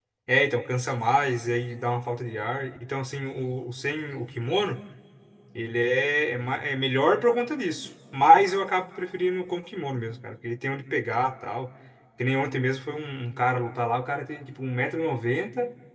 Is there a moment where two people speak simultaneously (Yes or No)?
No